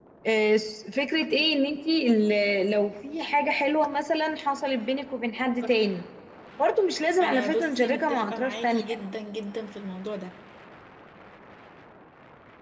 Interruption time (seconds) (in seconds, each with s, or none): 7.2 s